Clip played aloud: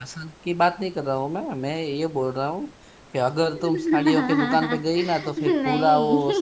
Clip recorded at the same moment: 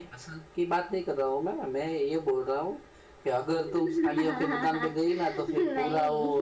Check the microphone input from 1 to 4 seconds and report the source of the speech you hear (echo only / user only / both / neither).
echo only